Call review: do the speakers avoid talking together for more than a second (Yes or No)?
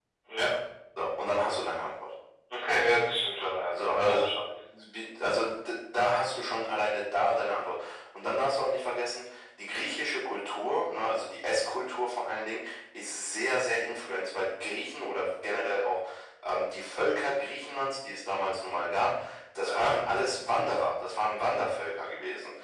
Yes